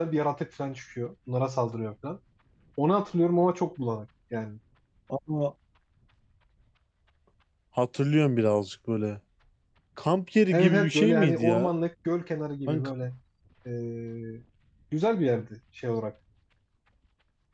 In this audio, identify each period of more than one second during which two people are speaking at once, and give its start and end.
10.5-11.7

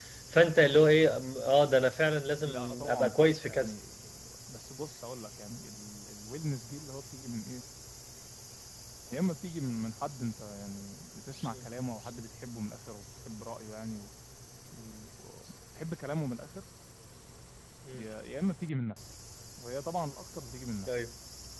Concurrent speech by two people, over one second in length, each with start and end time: 2.4-3.7

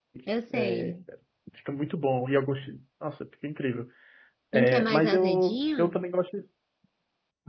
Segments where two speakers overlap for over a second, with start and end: 4.5-6.0

